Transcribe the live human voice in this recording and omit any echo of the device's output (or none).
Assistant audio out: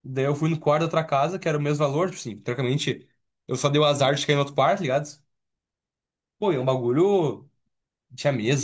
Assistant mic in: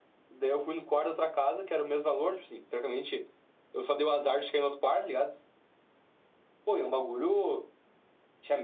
none